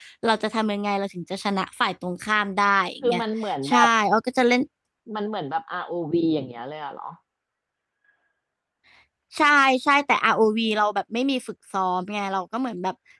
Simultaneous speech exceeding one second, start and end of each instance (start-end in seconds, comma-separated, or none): none